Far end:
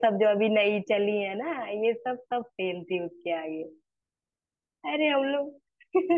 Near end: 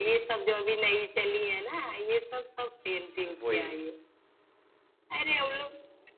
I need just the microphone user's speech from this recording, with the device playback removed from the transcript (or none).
वही